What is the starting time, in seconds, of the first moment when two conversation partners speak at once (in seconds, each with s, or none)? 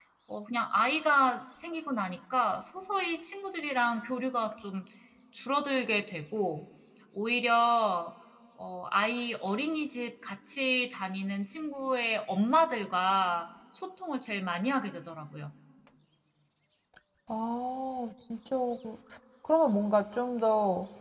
none